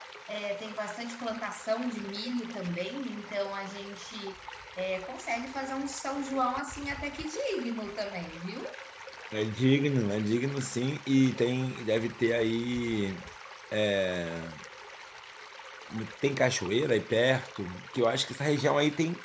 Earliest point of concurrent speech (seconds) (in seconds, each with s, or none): none